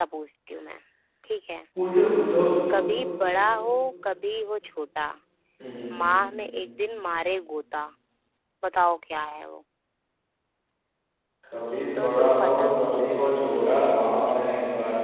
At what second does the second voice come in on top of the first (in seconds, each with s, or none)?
11.5 s